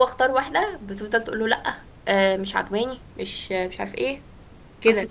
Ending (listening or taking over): taking over